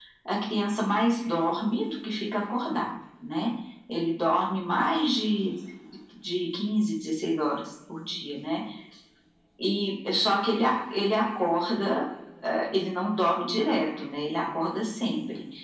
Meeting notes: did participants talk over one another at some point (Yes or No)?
No